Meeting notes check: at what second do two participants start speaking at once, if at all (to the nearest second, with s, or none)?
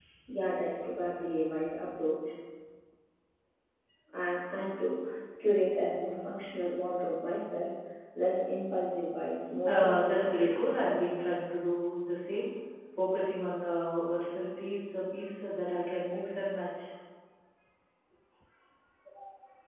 10 s